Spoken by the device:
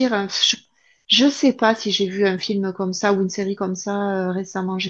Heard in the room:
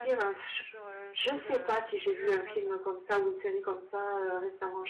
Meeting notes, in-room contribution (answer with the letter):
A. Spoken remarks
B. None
A